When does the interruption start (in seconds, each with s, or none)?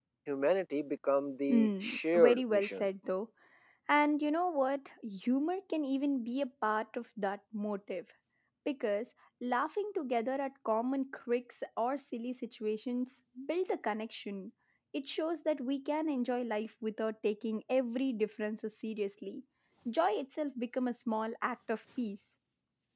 1.5 s